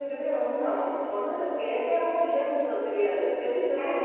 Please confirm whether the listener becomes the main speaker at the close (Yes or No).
Yes